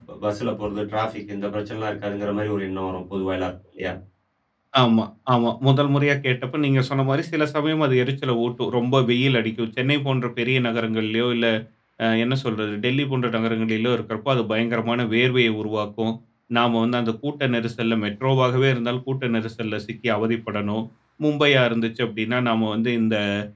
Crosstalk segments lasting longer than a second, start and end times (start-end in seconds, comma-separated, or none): none